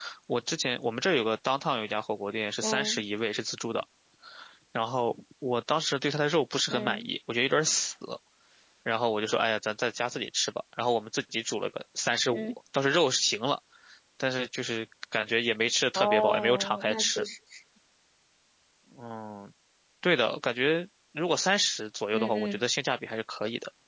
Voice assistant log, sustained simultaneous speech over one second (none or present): present